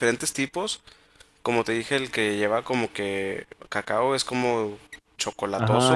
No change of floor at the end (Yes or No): No